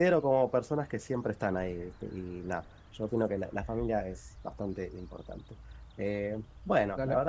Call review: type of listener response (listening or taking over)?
listening